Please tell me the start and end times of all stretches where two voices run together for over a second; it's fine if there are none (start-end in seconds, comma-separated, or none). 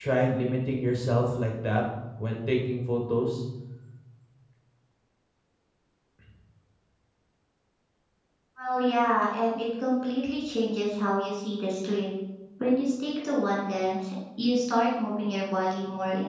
none